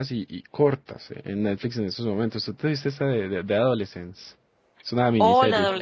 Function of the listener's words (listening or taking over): taking over